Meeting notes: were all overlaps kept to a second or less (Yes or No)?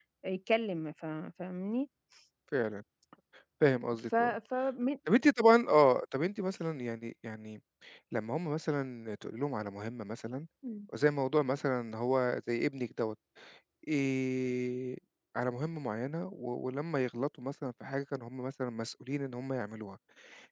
Yes